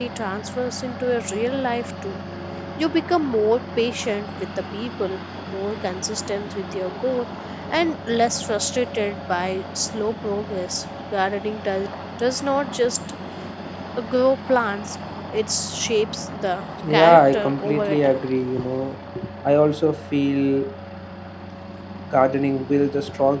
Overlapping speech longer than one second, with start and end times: 17.0-18.2

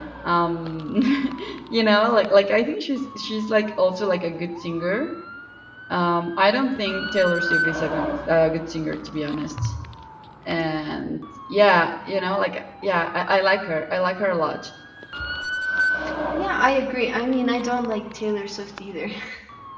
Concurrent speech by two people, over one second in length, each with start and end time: none

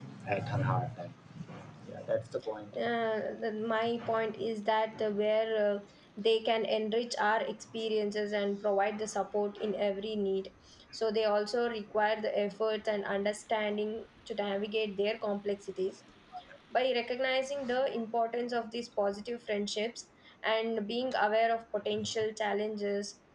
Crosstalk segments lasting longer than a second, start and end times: none

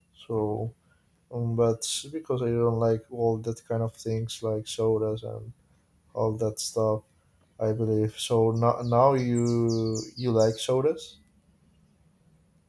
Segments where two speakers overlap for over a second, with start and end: none

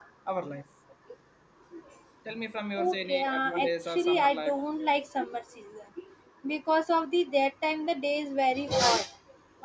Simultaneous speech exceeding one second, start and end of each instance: 2.8-4.6

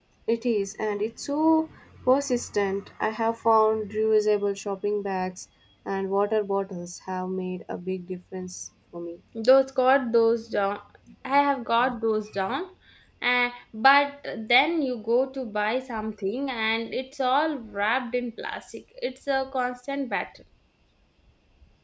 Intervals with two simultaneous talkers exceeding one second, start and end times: none

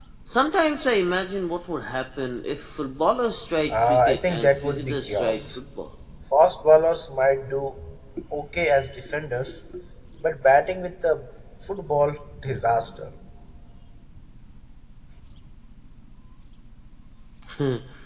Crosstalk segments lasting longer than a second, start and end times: 3.7-5.4

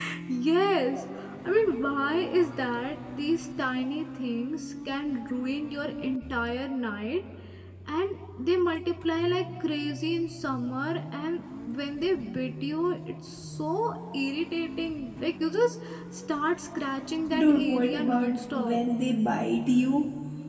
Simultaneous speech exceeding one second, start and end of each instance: 17.4-18.8

